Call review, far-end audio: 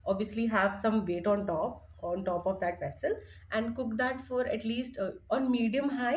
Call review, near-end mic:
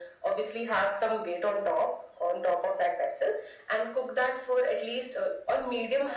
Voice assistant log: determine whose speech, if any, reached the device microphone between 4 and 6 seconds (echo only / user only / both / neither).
echo only